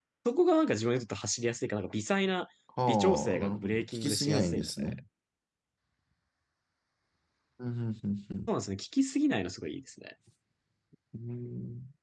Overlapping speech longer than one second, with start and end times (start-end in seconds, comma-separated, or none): 2.9-5.0